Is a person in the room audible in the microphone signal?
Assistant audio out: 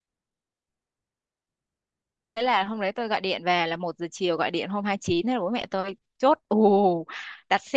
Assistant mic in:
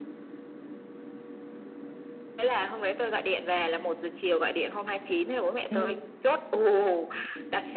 Yes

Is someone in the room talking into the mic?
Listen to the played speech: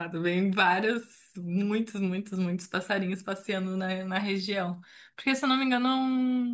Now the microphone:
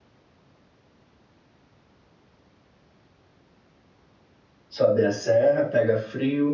Yes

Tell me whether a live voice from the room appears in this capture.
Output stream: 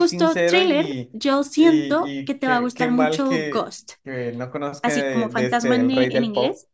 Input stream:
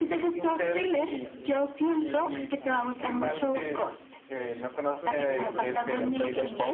Yes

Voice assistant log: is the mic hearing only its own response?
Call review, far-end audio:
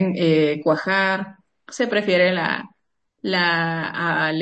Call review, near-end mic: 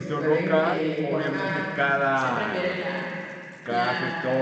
No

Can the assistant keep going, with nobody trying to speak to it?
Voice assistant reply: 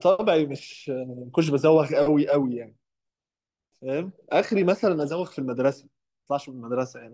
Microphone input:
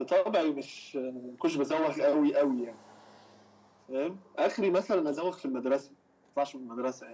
Yes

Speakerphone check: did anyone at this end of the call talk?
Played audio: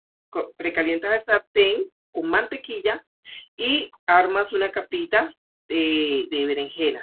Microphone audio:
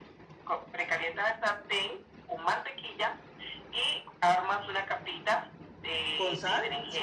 Yes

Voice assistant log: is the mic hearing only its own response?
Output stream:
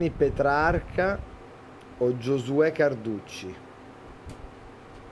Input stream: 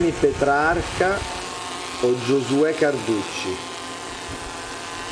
Yes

